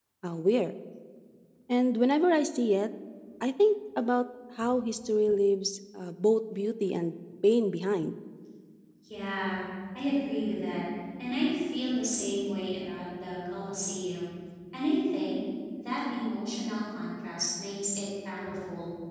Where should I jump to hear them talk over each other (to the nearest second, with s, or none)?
none